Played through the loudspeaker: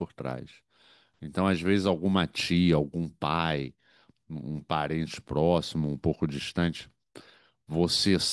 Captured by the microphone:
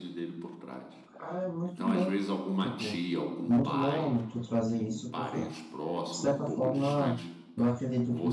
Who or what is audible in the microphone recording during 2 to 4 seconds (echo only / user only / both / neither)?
both